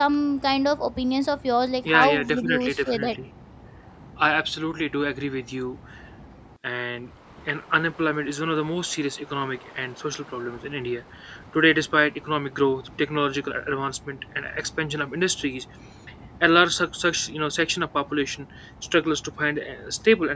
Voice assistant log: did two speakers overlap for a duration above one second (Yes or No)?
Yes